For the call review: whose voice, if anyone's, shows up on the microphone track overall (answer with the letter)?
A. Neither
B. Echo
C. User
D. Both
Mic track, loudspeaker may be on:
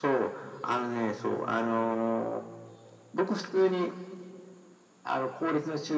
B